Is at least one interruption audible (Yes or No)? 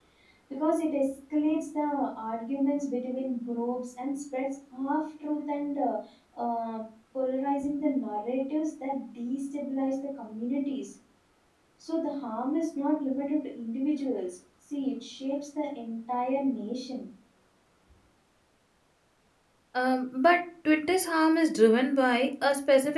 No